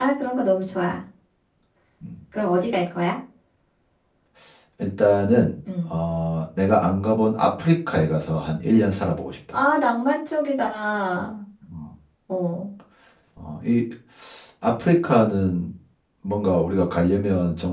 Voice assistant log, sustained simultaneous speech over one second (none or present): none